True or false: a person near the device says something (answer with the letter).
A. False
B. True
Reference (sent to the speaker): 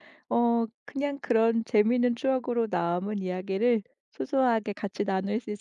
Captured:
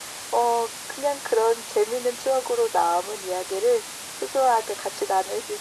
A